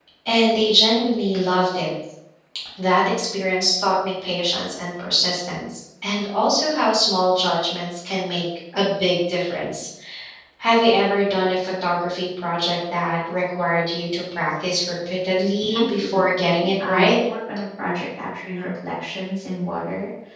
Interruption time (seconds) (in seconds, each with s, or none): 15.7 s